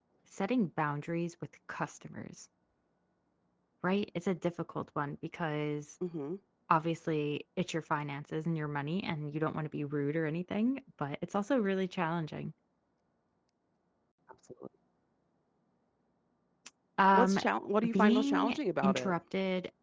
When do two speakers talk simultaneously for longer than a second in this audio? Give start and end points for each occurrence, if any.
17.9-19.1

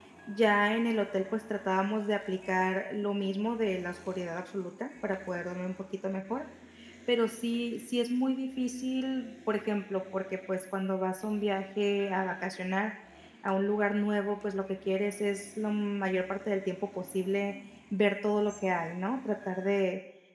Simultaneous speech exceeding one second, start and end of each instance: none

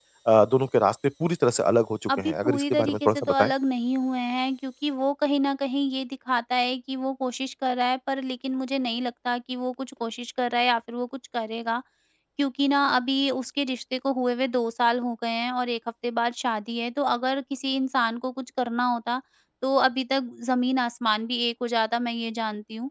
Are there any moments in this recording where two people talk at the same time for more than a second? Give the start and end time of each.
2.2-3.5

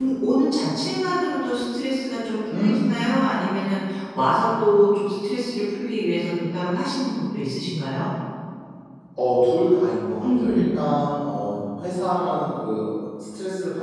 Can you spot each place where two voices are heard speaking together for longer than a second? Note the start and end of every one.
none

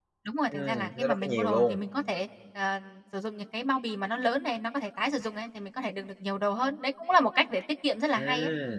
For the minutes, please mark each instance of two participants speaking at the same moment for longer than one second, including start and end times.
0.5-1.8

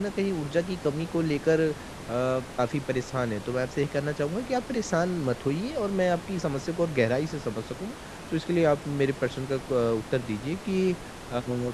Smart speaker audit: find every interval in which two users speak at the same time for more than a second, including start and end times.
none

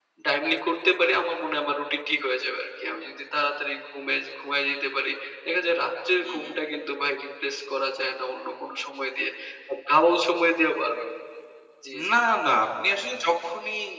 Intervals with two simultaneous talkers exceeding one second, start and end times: none

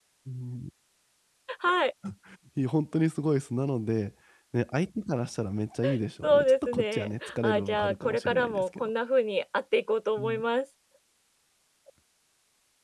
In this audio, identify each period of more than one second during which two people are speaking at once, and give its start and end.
6.2-8.9

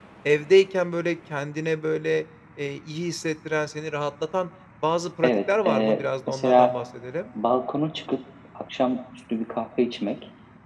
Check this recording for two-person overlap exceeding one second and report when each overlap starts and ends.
5.2-6.7

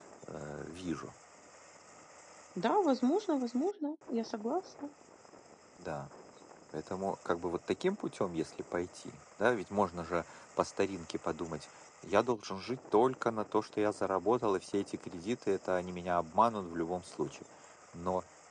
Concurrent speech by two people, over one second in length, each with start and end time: none

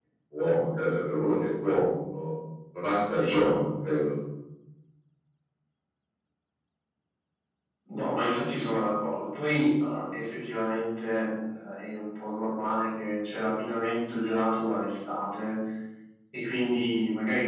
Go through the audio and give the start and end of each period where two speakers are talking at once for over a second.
none

